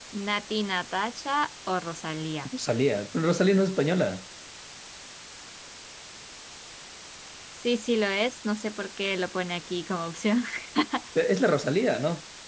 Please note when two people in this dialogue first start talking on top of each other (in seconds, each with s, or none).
none